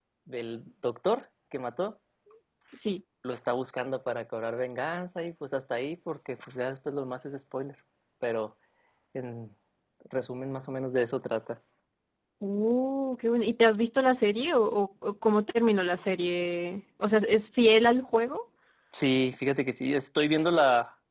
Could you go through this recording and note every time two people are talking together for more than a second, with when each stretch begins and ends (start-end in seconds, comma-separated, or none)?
none